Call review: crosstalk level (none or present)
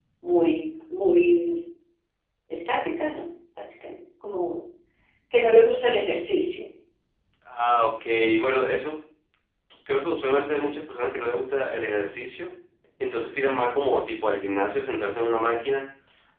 none